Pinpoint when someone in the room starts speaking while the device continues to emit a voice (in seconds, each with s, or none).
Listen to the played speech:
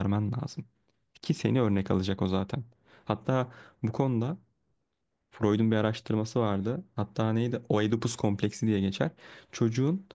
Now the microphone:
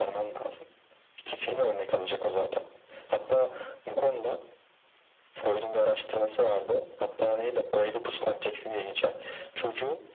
none